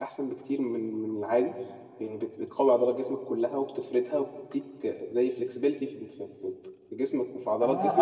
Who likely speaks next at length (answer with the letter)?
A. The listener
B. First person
A